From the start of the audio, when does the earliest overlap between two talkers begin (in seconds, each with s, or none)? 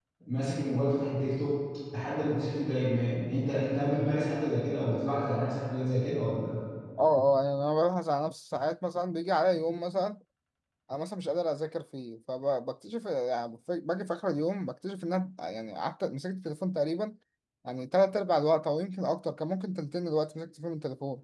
none